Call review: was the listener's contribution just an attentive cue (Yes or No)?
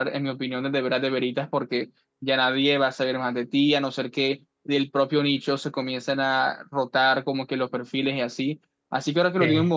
Yes